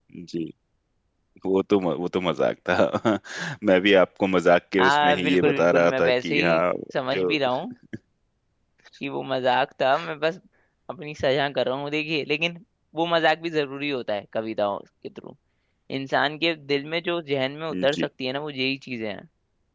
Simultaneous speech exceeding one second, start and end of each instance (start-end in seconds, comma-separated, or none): 4.8-6.6